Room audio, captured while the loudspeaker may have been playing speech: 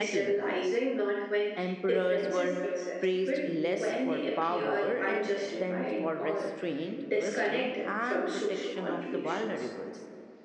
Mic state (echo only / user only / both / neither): both